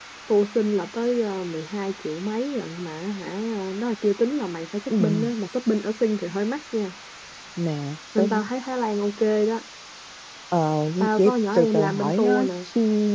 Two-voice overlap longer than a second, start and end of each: 11.0-12.5

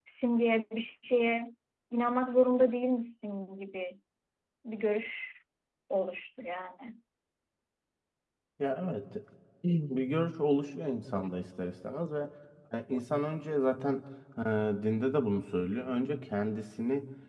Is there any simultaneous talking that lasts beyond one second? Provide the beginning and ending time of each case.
none

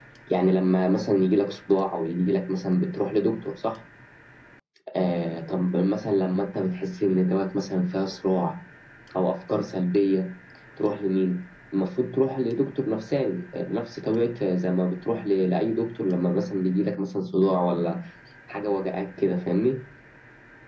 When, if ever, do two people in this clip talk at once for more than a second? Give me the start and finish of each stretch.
none

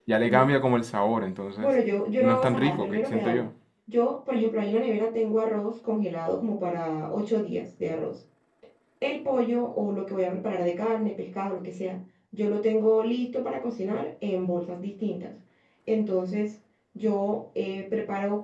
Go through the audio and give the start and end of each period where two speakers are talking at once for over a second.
2.2-3.4

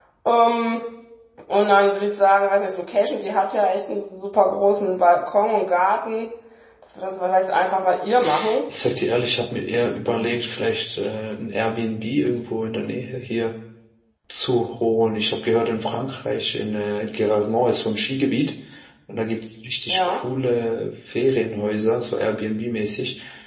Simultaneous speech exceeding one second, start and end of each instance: none

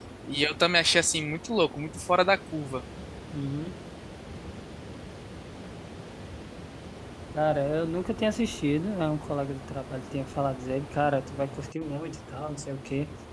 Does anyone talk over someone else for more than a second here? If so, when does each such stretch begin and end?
none

